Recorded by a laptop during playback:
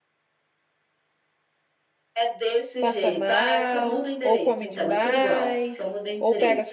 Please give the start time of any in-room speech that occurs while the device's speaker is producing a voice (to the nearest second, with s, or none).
3 s